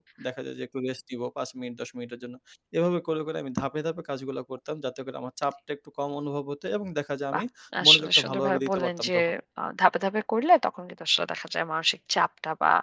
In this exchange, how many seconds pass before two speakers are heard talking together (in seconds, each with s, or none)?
7.8 s